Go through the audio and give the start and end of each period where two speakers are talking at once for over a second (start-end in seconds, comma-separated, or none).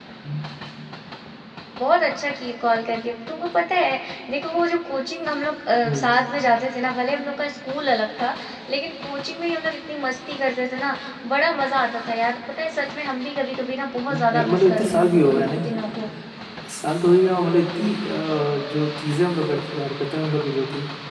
14.1-15.7